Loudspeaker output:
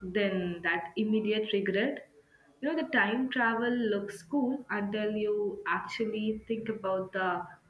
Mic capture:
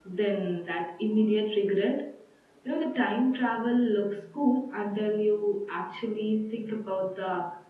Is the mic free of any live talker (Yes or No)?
Yes